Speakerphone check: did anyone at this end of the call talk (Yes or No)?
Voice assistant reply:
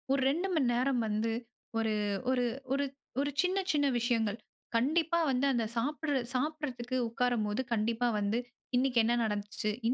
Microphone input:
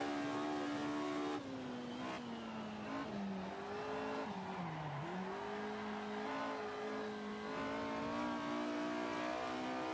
No